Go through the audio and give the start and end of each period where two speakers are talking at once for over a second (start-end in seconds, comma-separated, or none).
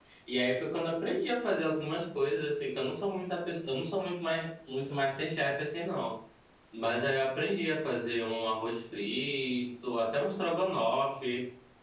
none